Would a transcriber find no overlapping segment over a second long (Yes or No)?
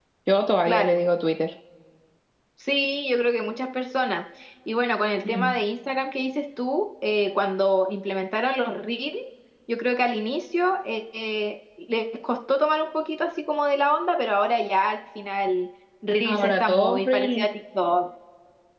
No